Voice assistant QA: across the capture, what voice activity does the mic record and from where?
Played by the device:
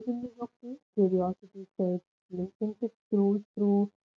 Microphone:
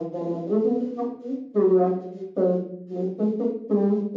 echo only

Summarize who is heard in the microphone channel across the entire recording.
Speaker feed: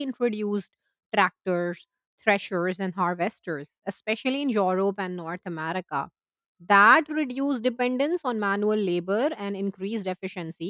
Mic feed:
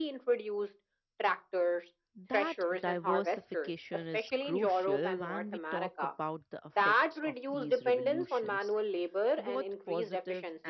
both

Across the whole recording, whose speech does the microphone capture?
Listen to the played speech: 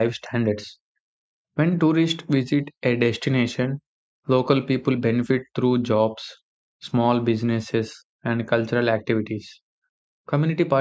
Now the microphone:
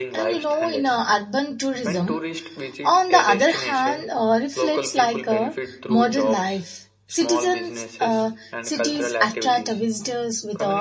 both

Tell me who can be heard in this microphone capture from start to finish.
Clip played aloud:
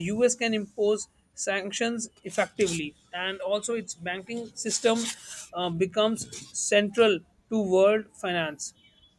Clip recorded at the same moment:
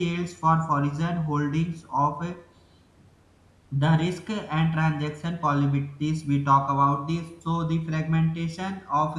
user only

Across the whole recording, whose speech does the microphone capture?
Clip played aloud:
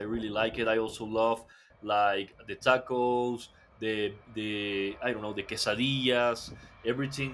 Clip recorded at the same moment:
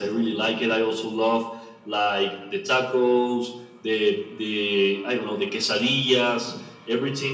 echo only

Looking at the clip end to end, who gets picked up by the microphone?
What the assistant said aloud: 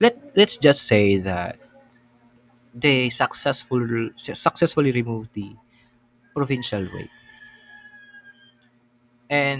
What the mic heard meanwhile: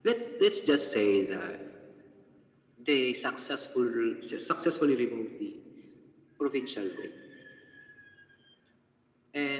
echo only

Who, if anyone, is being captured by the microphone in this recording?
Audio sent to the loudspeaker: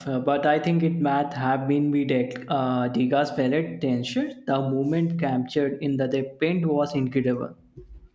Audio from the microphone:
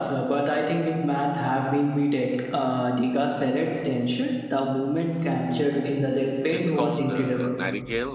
both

